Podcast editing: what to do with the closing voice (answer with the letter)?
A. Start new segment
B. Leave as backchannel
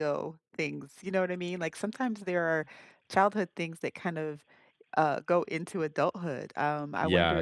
A